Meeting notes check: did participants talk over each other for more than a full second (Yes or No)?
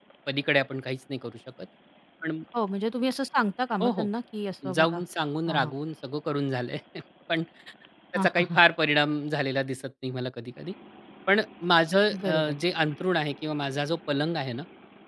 No